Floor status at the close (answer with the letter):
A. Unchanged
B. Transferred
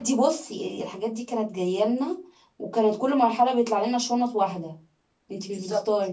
B